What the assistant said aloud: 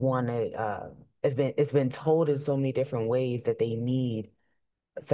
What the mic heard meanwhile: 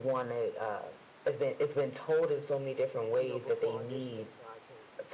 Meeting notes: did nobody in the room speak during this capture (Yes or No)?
No